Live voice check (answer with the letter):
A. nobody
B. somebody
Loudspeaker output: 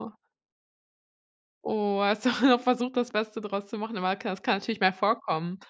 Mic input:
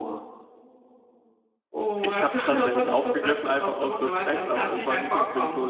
B